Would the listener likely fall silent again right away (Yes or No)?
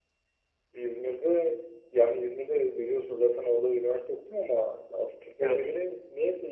Yes